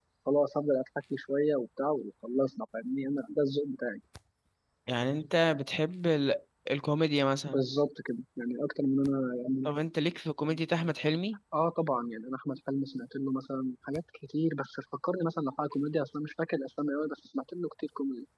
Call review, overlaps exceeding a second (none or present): none